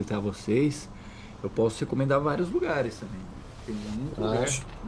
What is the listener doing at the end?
listening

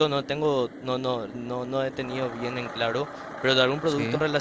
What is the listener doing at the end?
listening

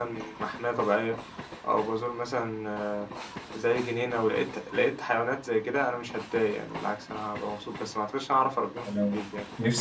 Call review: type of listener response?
taking over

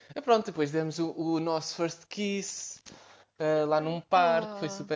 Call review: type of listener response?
listening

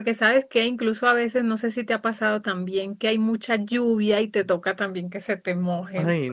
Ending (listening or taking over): taking over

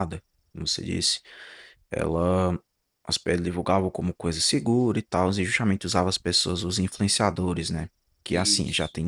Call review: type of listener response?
listening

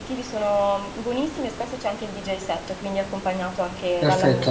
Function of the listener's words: taking over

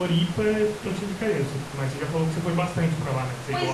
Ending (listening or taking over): taking over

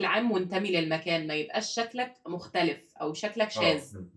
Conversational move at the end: taking over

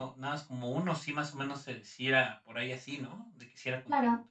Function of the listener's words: taking over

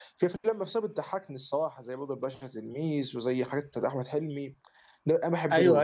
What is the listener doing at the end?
taking over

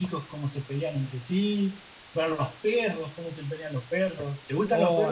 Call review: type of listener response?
taking over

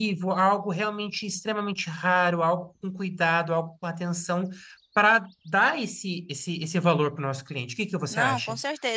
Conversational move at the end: taking over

